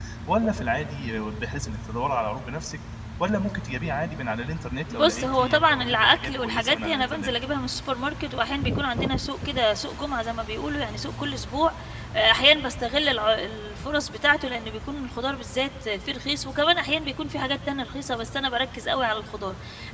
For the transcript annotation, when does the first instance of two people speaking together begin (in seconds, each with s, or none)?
4.9 s